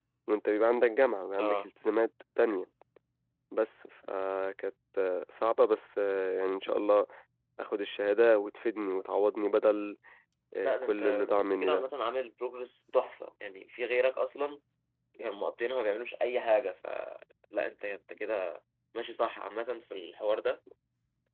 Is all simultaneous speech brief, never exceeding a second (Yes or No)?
No